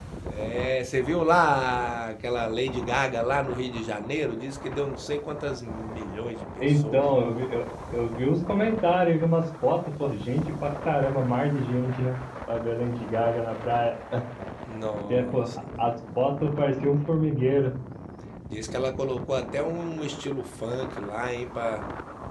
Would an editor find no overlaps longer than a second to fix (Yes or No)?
Yes